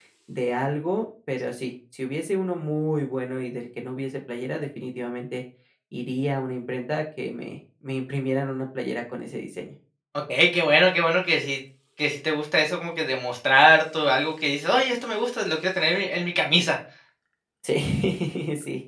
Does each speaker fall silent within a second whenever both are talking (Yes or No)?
Yes